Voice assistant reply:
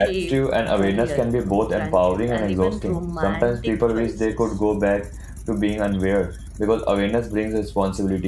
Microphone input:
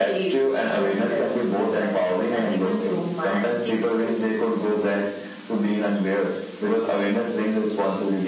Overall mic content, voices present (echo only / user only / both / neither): echo only